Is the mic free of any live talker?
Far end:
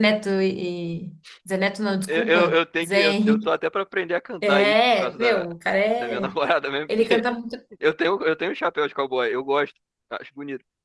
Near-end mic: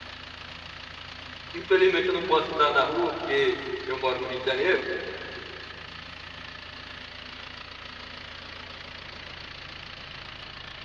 No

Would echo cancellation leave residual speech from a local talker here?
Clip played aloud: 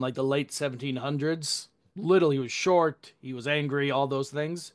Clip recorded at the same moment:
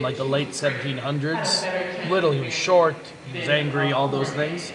Yes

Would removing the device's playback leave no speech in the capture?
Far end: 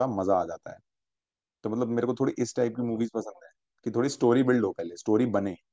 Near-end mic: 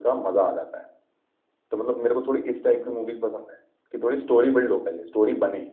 Yes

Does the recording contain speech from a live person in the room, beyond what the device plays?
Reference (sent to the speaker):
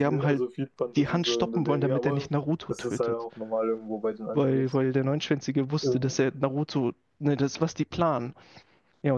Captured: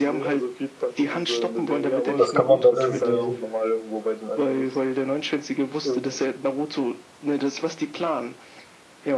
Yes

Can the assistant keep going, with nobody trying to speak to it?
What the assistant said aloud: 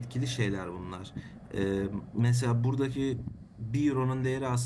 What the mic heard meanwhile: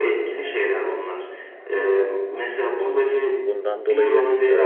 No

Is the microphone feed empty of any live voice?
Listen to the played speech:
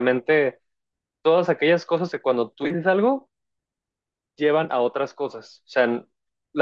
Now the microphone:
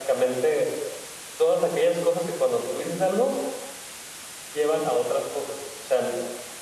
Yes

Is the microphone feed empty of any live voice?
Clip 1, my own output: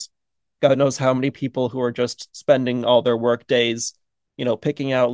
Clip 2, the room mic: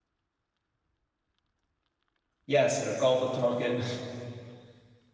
No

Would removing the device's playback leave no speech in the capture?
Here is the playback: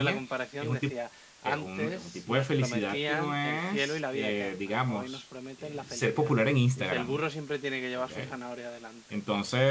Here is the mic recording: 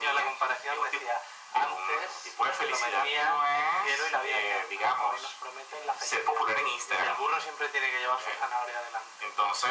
Yes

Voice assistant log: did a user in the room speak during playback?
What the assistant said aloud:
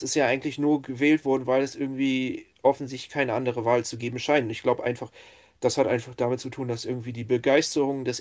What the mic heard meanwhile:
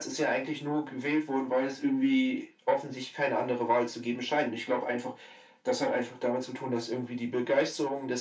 No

